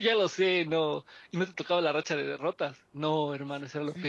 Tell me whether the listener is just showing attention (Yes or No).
No